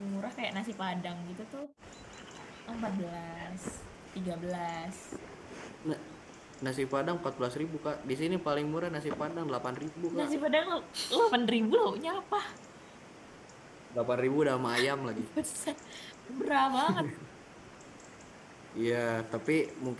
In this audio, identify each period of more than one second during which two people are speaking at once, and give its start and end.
none

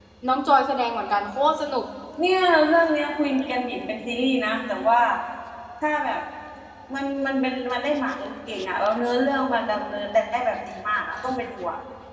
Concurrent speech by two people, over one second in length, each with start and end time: none

